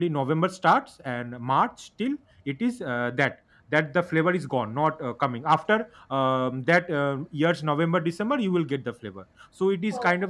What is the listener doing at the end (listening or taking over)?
listening